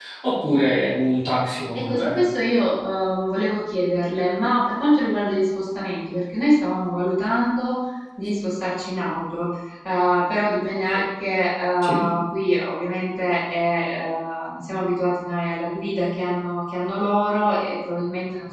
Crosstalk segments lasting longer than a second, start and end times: none

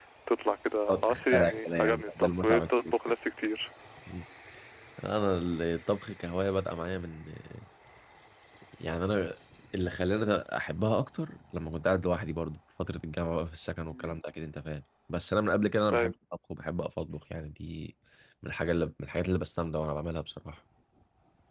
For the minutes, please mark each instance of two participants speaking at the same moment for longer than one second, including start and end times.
0.9-3.1

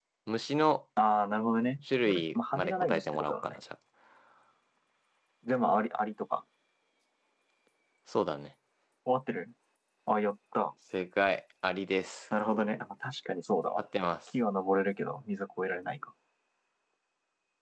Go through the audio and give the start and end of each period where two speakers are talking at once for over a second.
2.0-3.6

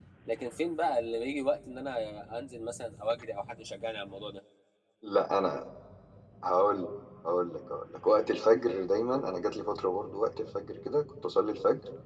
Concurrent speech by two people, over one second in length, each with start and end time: none

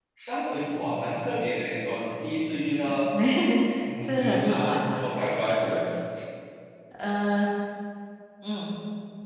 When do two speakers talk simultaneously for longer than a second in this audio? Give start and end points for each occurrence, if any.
4.0-5.5

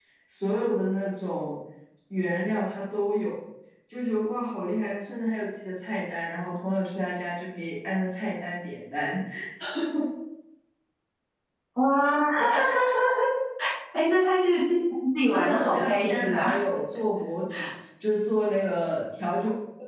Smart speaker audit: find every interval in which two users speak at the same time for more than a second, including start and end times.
15.3-16.6

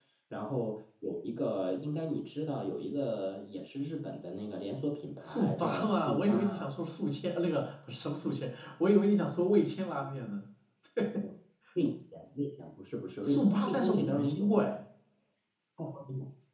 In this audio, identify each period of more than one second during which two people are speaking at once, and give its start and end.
5.2-6.7, 13.2-14.7

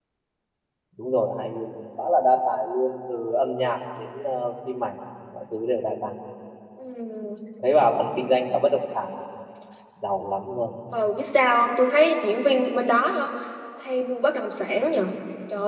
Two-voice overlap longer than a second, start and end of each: none

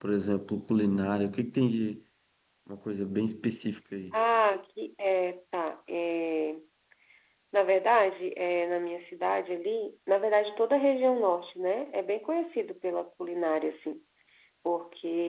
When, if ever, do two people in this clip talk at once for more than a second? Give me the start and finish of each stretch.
none

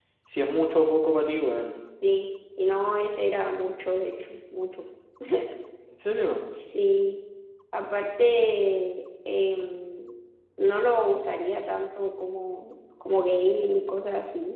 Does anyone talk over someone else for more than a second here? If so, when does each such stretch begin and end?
none

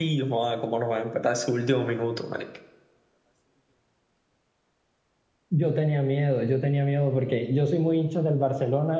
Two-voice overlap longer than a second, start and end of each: none

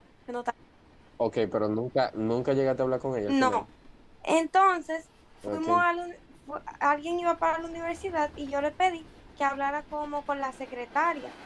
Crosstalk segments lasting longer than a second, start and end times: none

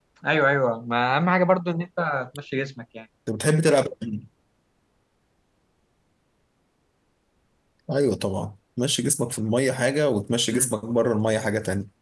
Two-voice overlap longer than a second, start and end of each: none

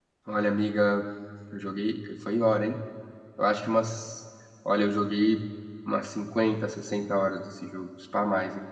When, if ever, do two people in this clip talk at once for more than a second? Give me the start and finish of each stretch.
none

